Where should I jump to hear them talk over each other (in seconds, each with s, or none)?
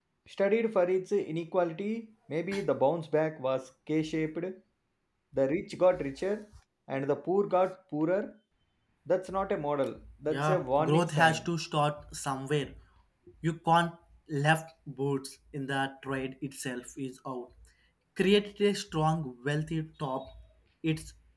10.3 s